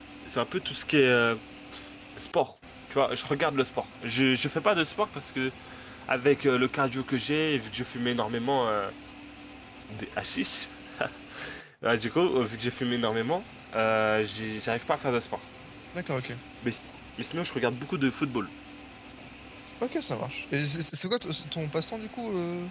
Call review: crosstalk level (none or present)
none